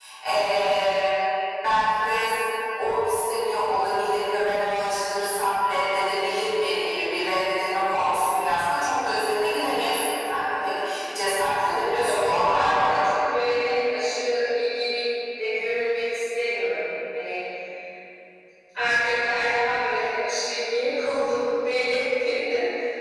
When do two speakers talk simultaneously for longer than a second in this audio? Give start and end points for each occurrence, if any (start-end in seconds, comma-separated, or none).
11.6-13.1